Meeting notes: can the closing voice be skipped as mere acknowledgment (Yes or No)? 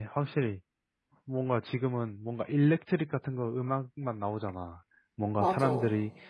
Yes